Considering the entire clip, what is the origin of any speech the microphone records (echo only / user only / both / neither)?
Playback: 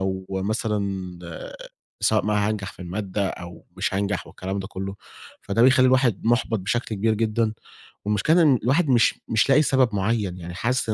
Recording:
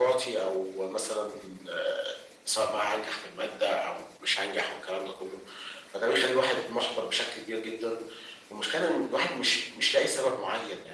echo only